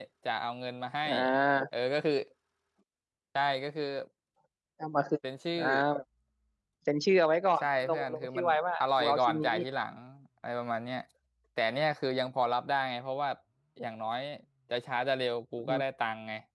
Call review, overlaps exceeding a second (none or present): present